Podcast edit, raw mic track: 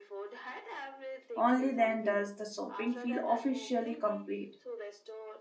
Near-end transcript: Only then does the shopping feel officially complete.

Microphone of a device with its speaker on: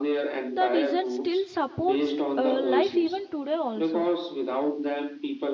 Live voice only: the desert still supports uh, life even today also

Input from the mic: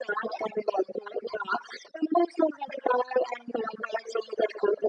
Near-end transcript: none

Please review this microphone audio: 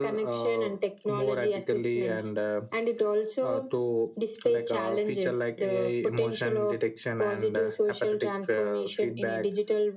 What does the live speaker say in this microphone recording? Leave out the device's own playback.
none

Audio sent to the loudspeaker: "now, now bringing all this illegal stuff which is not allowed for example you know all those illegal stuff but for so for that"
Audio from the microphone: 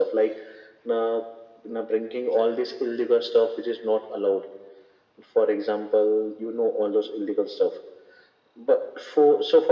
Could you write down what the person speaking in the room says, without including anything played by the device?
none

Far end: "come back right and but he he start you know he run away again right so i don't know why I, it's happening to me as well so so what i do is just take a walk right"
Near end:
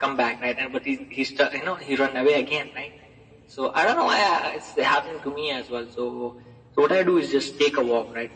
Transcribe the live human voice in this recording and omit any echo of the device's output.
none

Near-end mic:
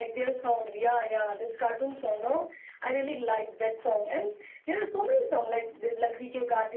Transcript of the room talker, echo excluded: none

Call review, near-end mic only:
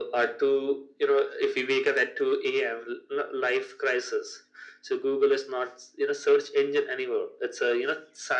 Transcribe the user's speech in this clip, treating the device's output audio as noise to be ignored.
none

